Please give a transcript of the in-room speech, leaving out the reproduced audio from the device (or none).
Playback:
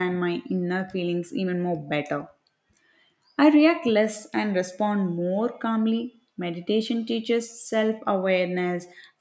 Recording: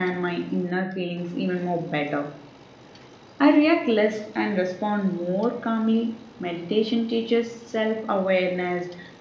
none